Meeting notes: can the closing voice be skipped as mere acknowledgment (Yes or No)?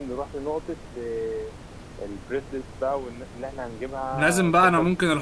No